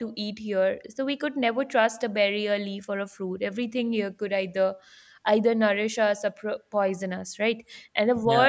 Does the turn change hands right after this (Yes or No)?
No